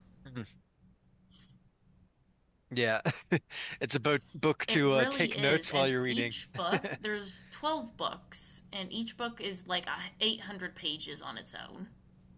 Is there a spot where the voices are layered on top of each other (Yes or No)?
Yes